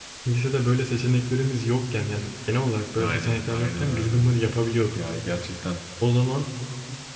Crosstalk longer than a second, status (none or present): present